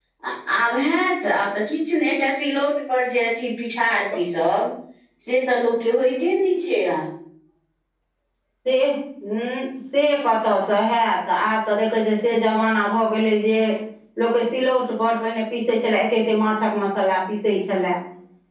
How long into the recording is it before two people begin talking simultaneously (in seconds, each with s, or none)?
none